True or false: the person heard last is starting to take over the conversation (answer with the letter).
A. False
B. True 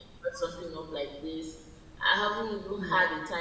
A